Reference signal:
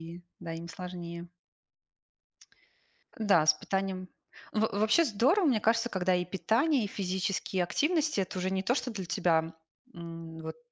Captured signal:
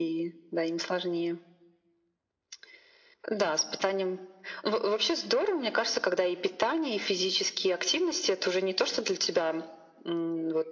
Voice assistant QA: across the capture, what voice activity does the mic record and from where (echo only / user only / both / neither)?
echo only